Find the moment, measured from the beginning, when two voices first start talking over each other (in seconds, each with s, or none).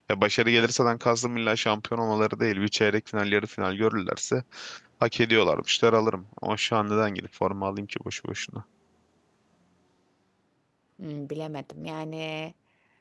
none